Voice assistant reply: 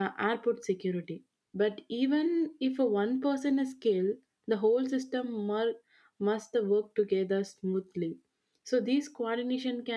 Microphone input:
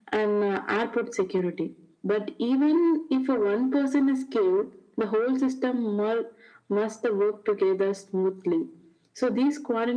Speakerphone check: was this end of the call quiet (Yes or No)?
Yes